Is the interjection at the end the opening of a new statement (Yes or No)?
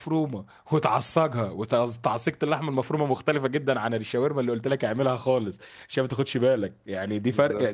No